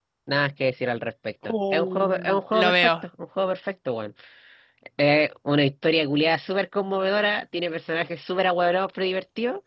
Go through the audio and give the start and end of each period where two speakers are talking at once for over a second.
1.4-2.9

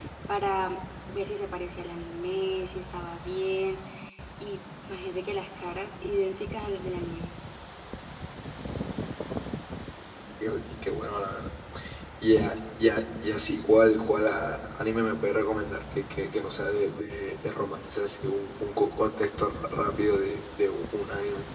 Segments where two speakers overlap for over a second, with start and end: none

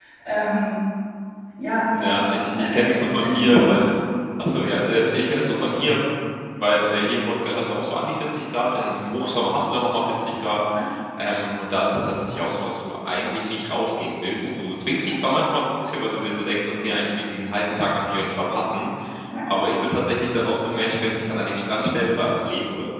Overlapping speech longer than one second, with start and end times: 2.0-3.5

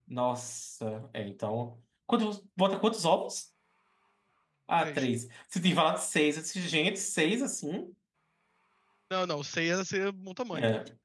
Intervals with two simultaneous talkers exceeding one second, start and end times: none

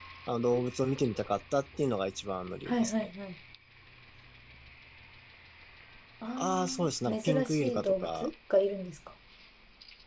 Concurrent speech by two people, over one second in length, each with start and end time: 6.4-8.3

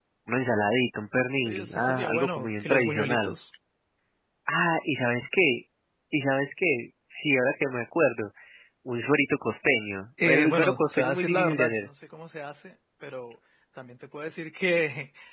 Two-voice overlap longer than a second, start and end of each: 1.5-3.4, 10.2-11.9

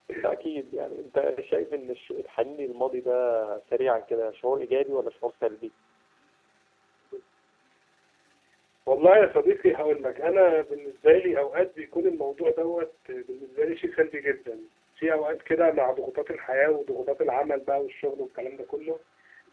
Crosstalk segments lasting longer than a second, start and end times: none

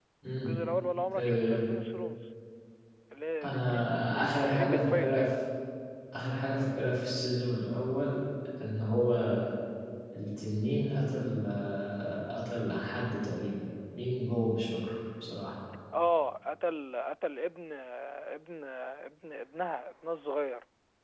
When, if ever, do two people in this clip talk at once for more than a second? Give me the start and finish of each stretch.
3.4-5.3

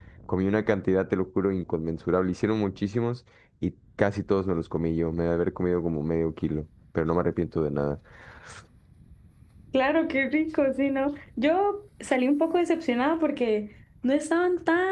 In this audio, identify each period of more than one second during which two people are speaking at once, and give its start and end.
none

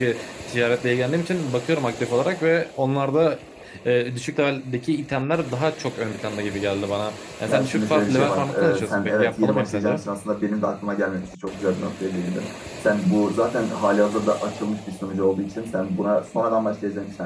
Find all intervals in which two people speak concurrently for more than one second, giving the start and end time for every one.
7.5-10.0

